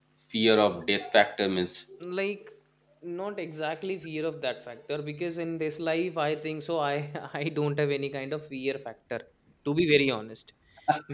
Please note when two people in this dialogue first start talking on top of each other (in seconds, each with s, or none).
none